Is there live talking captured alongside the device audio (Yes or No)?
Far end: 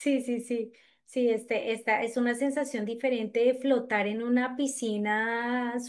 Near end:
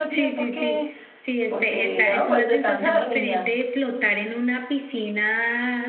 Yes